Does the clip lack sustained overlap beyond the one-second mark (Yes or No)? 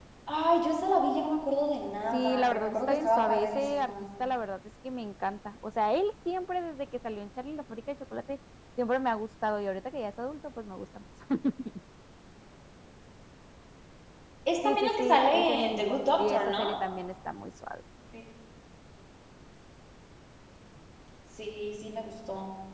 No